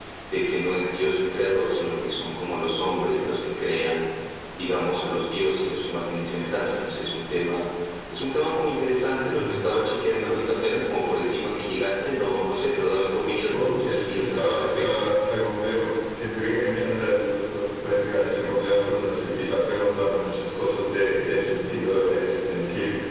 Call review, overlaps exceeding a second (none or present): present